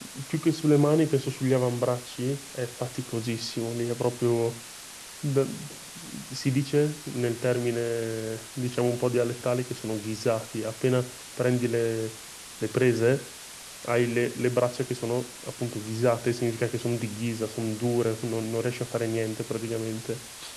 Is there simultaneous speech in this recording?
No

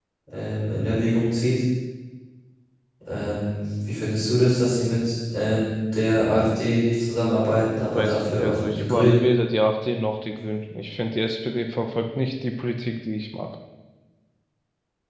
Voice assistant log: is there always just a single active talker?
No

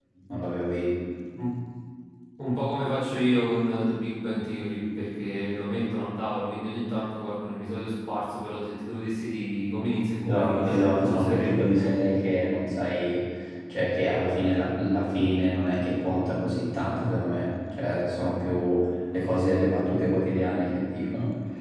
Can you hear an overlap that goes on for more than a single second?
Yes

